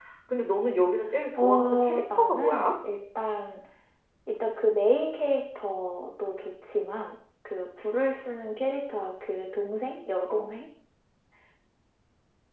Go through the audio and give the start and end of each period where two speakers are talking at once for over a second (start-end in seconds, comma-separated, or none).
1.4-2.7